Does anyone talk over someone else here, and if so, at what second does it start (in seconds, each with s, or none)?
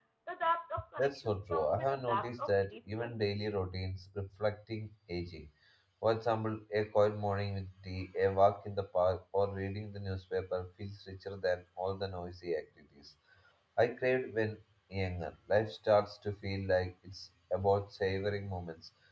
1.0 s